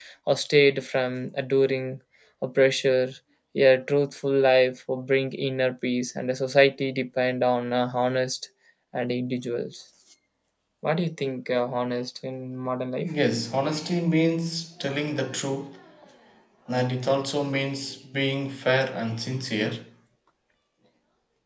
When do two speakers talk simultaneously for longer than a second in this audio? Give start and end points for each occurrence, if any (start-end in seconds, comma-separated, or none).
none